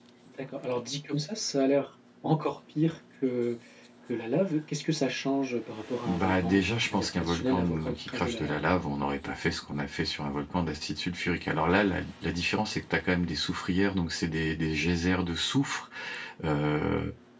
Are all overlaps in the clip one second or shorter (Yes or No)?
No